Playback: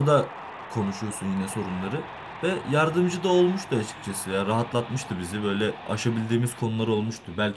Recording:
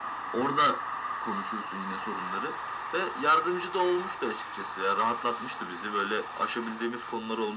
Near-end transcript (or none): none